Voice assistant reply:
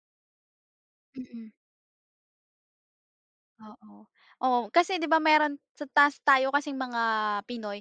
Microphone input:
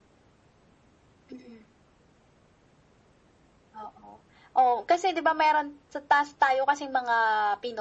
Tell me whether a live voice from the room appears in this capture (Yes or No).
No